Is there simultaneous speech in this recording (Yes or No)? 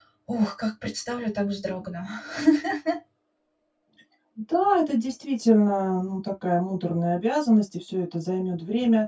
No